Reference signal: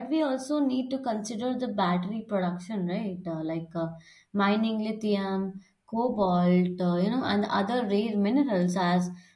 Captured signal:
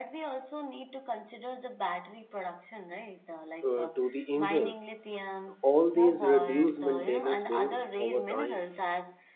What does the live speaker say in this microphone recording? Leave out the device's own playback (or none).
uh, to the engine. All these reduce maintenance bill over time.